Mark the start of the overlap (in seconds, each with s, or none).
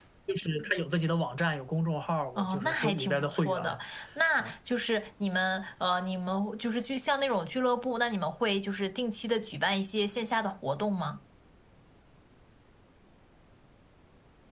2.4 s